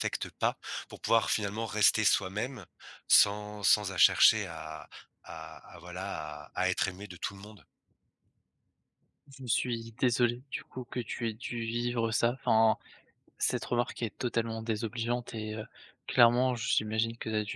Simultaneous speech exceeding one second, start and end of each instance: none

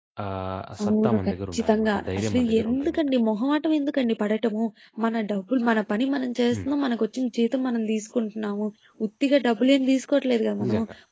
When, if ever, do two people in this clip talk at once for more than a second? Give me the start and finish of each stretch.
0.8-3.0

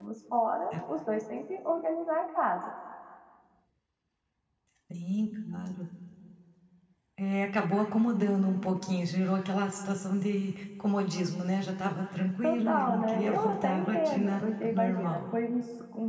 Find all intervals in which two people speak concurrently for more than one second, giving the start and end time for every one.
12.4-15.2

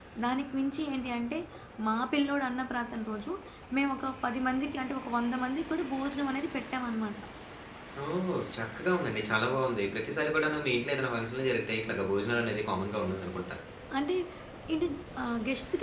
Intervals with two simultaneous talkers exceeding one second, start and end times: none

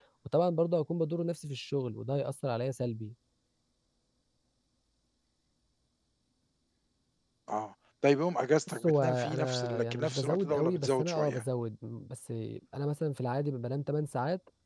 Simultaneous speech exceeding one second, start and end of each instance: 8.7-11.4

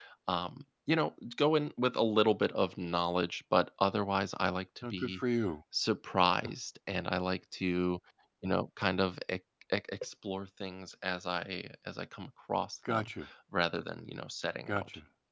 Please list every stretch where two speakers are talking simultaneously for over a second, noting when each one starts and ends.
none

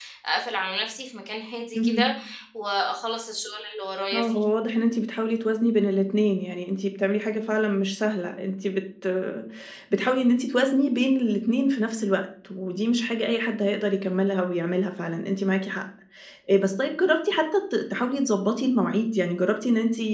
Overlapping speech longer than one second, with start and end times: none

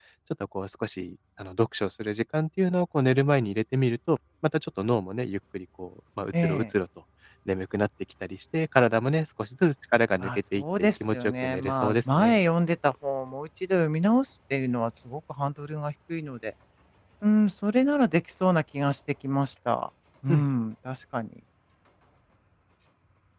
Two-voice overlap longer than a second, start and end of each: 10.2-12.4

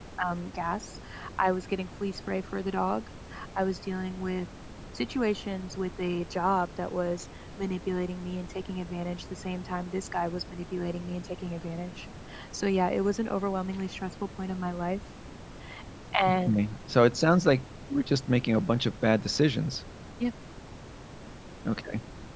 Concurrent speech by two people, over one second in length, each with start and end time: none

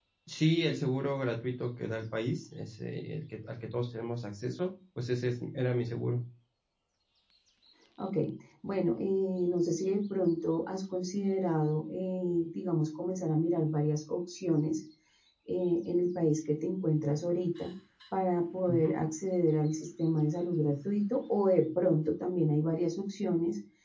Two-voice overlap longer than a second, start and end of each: none

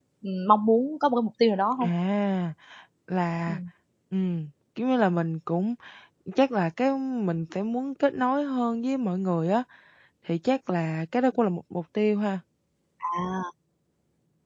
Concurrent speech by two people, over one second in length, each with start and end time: none

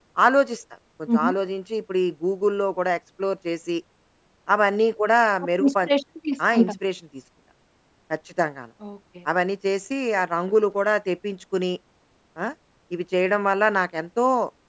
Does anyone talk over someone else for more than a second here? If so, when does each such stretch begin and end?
none

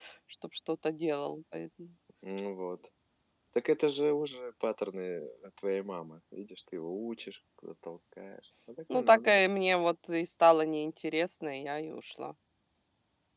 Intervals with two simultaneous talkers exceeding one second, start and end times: none

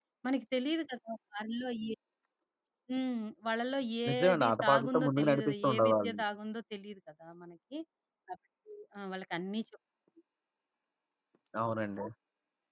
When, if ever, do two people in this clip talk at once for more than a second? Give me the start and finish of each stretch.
4.1-6.2

